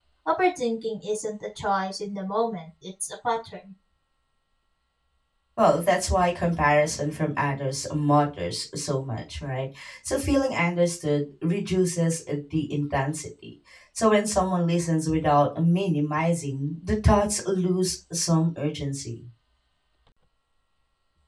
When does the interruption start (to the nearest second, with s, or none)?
none